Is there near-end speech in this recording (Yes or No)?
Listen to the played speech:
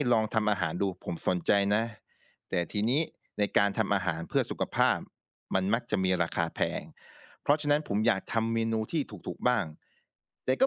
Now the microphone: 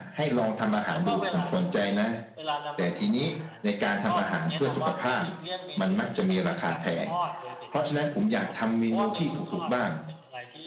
Yes